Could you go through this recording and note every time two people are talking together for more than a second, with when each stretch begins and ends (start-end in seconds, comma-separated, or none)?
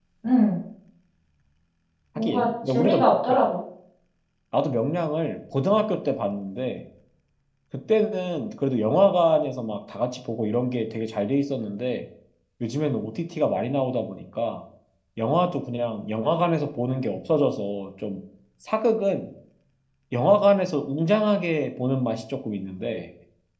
2.2-3.4